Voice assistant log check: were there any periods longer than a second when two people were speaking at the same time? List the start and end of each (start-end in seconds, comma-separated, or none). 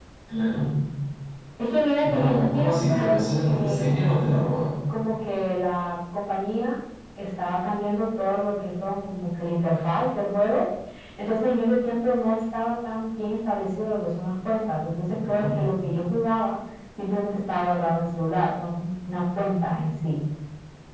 2.0-4.2